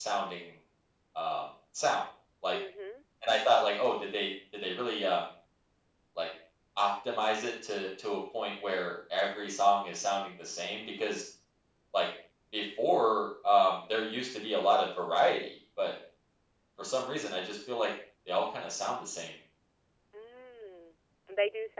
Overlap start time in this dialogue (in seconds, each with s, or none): none